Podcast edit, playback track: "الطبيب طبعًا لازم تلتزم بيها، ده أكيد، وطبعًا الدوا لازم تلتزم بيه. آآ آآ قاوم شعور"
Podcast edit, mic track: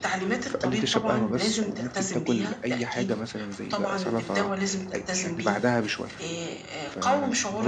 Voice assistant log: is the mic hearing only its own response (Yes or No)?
No